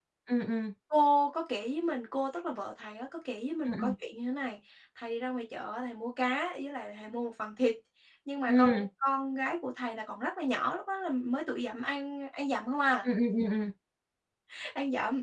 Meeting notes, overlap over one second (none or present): none